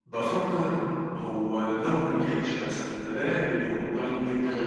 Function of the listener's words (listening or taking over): listening